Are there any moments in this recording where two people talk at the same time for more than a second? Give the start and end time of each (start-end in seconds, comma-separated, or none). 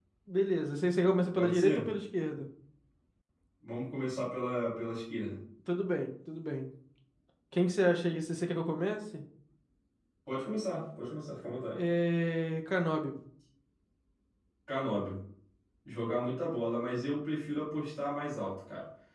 none